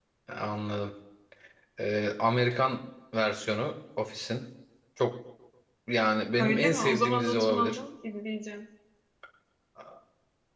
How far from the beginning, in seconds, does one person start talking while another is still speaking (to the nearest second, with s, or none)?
6 s